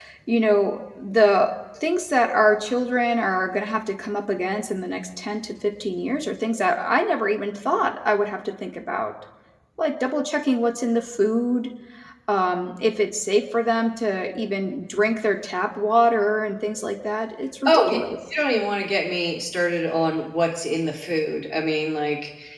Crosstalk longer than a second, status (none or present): none